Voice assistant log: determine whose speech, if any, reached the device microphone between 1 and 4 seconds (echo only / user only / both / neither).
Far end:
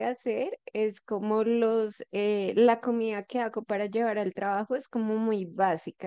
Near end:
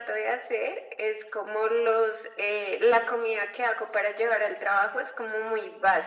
echo only